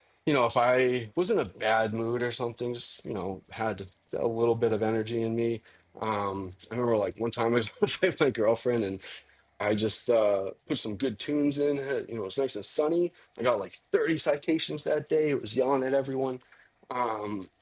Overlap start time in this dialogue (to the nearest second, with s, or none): none